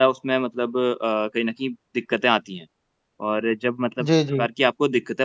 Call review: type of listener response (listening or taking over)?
listening